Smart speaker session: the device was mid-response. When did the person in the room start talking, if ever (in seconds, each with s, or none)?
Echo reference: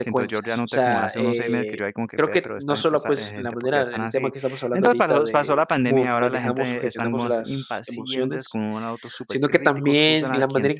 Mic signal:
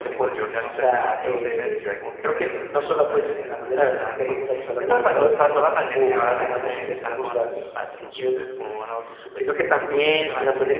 none